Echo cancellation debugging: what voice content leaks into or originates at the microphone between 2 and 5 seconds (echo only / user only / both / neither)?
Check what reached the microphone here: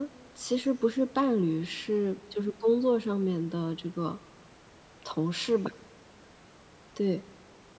echo only